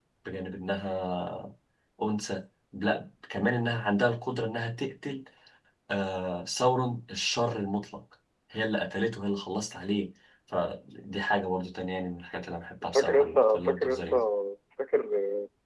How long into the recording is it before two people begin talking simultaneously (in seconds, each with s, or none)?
12.9 s